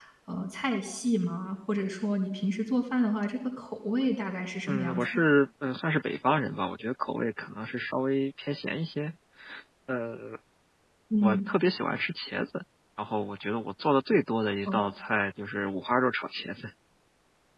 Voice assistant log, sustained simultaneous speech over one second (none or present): none